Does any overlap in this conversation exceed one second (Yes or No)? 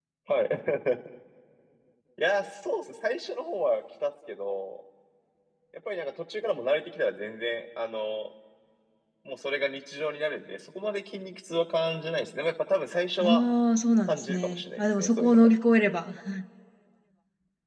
Yes